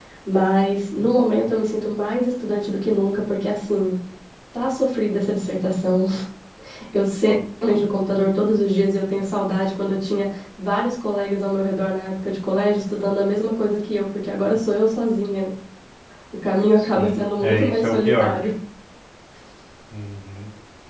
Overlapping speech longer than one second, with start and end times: 16.8-18.4

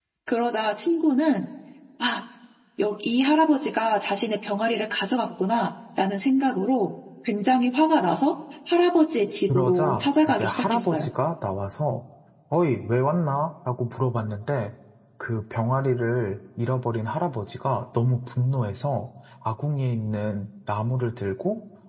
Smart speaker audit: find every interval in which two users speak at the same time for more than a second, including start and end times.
9.5-11.1

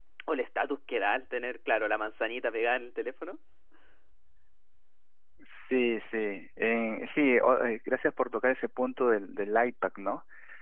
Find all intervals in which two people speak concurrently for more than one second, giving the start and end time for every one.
none

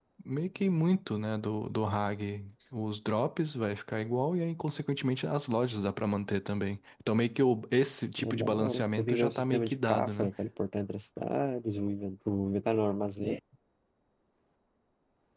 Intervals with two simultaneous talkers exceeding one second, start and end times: 8.2-10.3

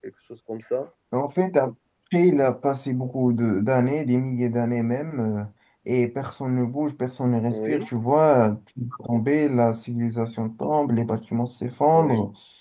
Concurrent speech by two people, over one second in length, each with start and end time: none

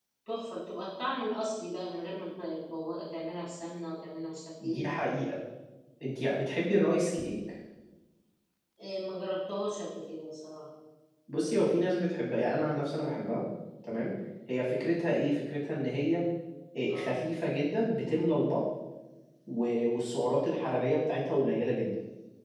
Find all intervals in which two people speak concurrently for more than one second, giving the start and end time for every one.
none

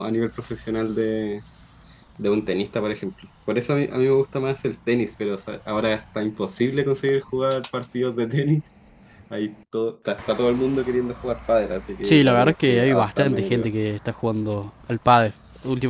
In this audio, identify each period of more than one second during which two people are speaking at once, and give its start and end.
12.0-13.7

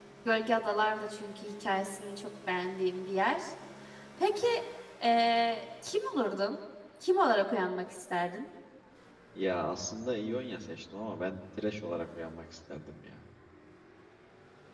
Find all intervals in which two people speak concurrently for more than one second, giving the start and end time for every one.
none

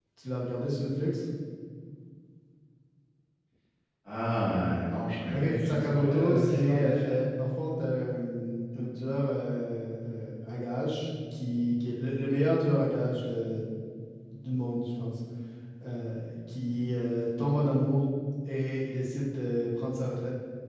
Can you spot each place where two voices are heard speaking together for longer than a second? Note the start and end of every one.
5.3-7.2

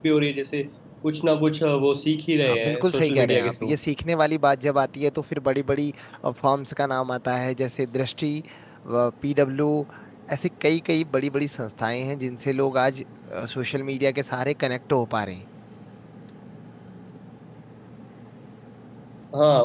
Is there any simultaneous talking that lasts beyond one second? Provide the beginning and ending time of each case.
2.4-3.7

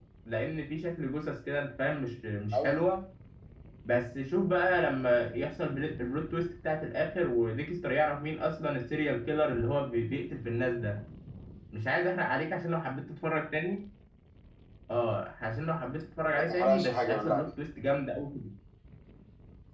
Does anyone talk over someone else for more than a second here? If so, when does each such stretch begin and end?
16.2-17.5

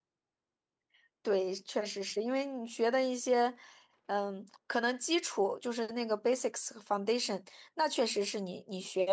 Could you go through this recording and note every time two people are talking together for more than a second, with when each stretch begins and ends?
none

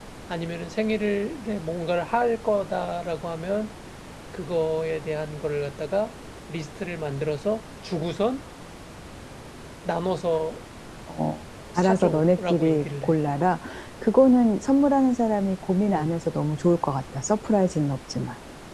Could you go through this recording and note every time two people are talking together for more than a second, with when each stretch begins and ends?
11.8-13.2

